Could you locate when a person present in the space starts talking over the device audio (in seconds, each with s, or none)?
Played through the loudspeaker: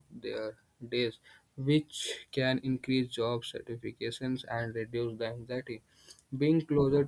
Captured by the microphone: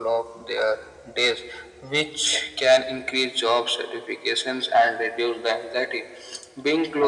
none